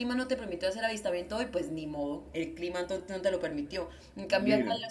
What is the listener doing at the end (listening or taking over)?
listening